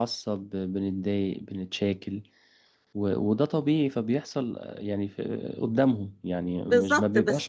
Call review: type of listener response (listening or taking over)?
taking over